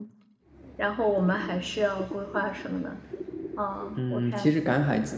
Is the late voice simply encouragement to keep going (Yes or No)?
No